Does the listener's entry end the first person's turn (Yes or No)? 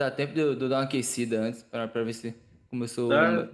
No